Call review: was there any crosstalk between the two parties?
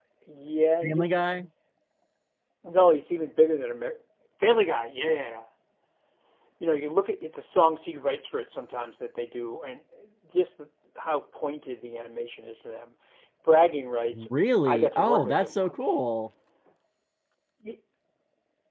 Yes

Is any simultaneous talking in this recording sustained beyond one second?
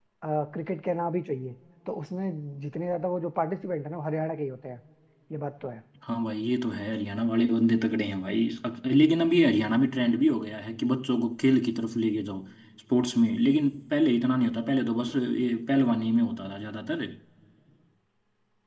No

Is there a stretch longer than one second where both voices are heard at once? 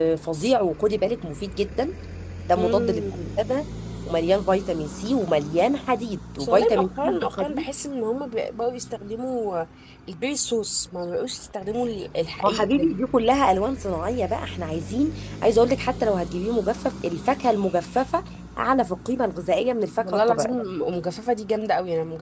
Yes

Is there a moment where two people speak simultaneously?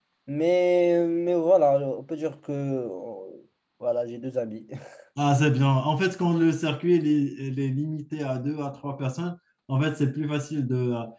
No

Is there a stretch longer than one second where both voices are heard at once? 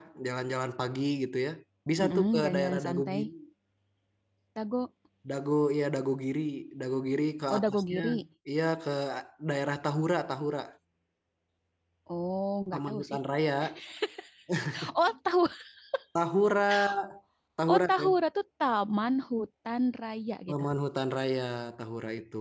Yes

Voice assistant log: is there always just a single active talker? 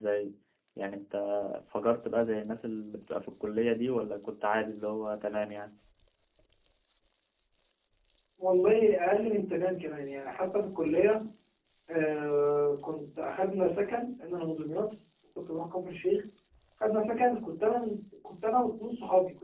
Yes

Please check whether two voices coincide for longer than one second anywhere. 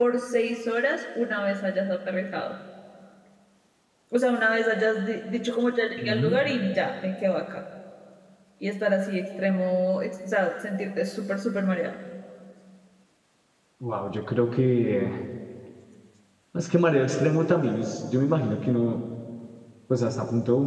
No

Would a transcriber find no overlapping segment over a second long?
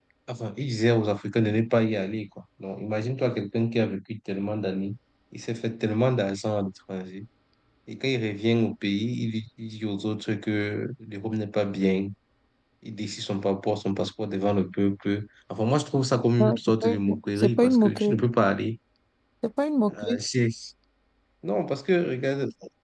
No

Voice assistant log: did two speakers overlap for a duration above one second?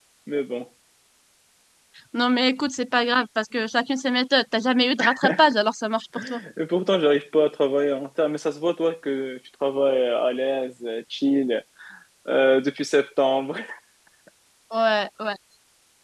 No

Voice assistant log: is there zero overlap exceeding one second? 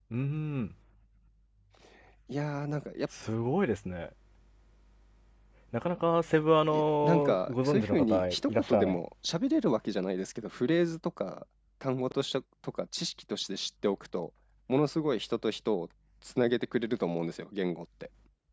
No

